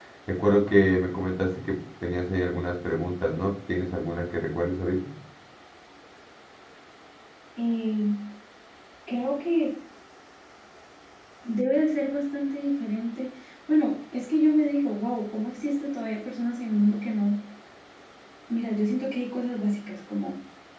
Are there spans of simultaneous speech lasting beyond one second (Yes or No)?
No